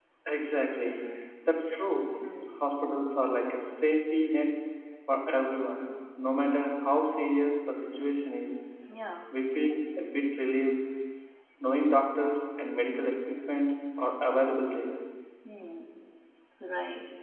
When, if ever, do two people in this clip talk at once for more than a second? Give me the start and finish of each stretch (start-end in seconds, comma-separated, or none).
none